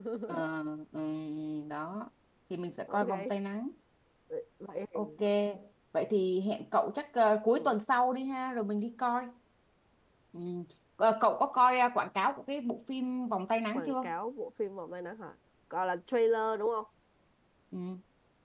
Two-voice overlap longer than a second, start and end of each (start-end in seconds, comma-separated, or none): none